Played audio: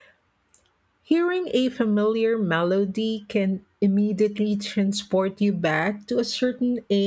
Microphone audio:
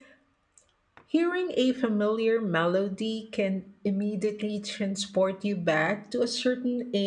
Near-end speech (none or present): none